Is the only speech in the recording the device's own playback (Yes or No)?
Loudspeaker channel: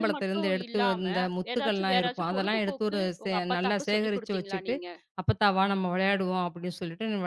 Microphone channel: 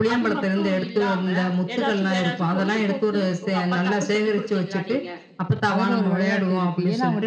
No